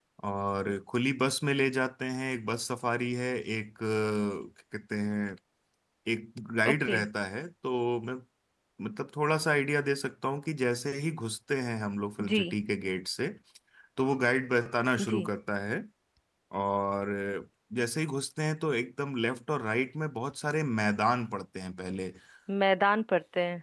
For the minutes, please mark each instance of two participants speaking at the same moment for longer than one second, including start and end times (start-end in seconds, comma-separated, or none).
none